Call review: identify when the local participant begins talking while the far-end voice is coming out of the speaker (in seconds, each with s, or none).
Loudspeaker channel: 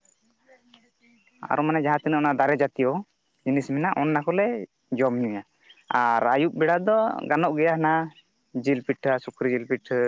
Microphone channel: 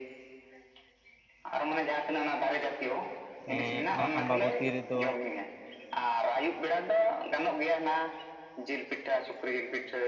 3.5 s